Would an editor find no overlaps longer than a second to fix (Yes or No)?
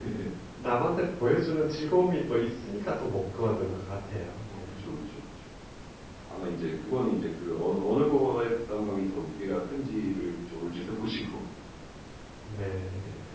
Yes